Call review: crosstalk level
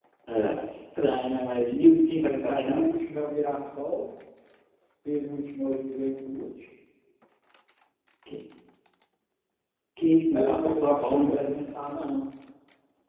present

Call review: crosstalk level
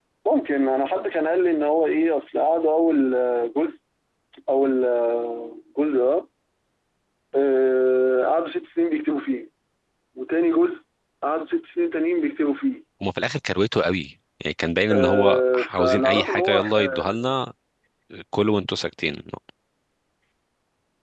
present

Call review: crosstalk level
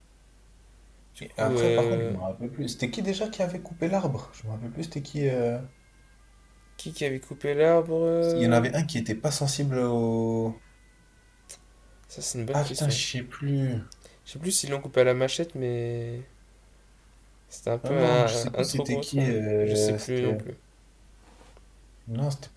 present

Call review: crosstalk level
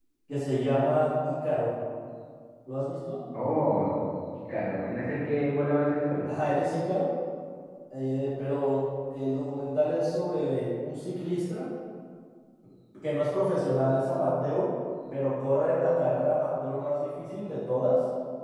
none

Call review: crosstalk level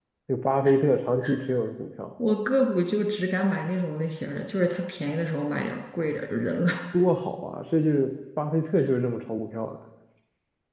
none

